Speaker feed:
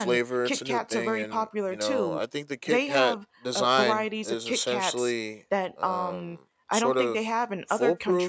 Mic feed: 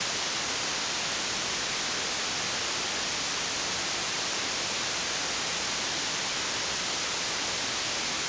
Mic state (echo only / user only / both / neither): neither